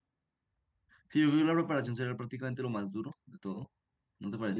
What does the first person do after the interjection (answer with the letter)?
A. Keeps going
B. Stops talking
B